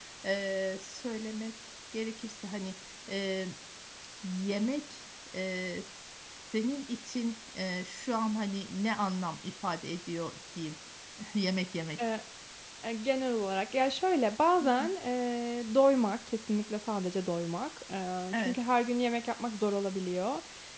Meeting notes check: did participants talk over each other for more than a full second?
No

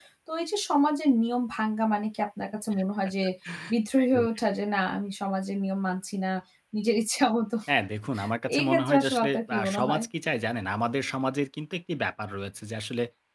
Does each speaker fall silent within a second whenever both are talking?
No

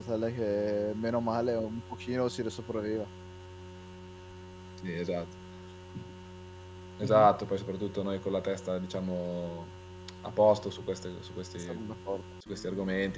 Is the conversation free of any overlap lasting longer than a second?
Yes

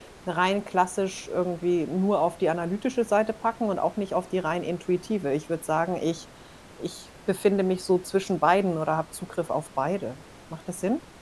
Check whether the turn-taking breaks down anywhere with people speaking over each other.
No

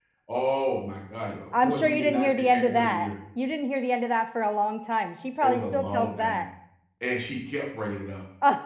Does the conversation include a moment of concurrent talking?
Yes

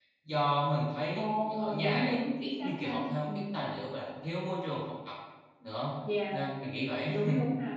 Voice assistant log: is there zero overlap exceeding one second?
No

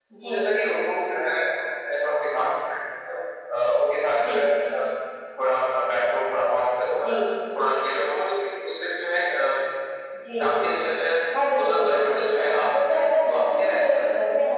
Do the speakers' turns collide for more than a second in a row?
Yes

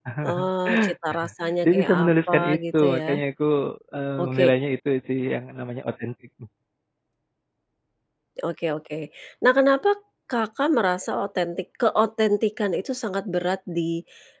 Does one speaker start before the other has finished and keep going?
Yes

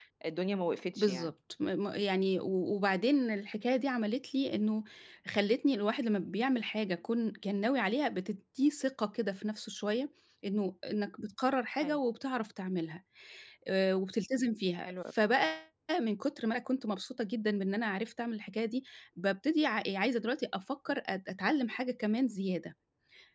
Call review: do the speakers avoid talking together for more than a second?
Yes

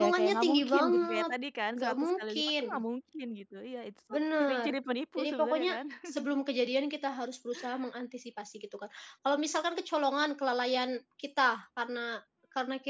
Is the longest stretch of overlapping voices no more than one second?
No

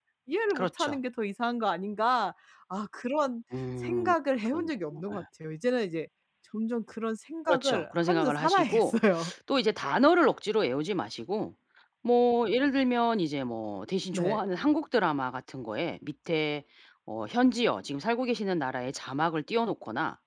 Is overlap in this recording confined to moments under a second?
No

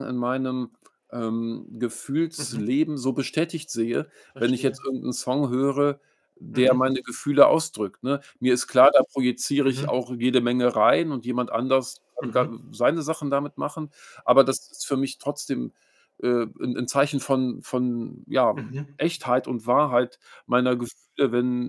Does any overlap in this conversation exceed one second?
No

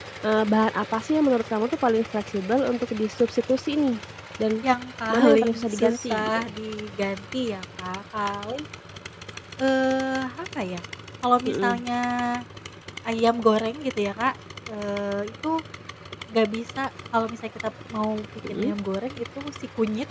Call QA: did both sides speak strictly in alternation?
No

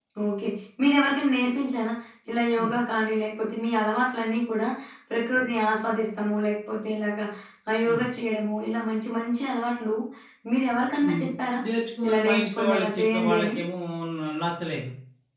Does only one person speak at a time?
No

